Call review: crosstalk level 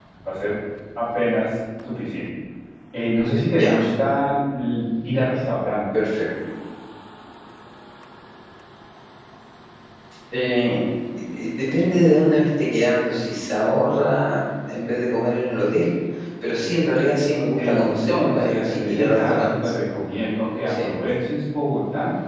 present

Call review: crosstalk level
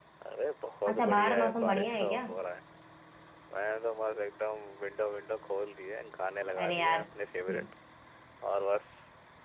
present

